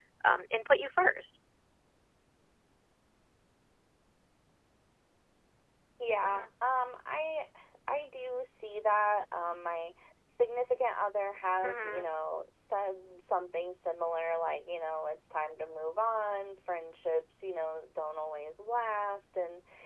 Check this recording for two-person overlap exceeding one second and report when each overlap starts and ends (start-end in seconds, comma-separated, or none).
none